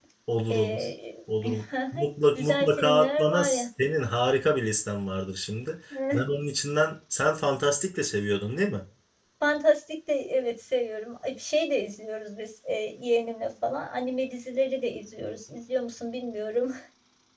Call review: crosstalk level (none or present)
present